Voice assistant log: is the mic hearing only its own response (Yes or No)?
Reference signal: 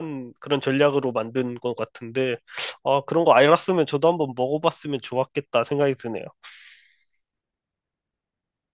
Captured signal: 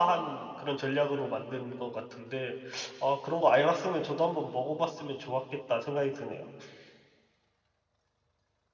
Yes